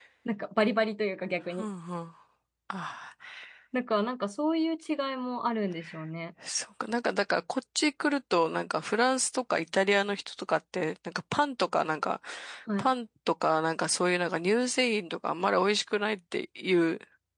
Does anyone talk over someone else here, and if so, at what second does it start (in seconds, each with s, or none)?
none